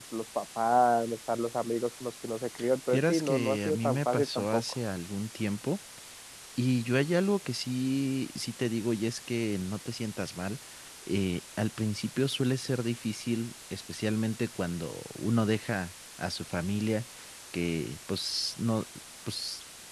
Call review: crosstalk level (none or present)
present